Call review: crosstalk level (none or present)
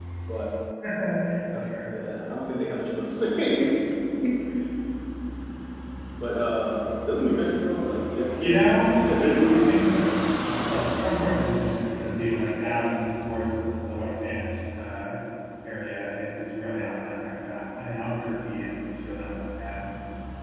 present